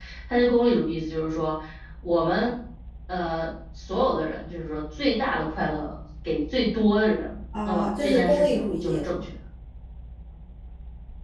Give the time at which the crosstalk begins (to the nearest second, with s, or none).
8 s